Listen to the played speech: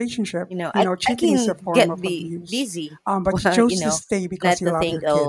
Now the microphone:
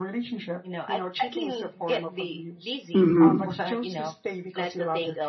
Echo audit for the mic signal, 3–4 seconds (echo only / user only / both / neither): both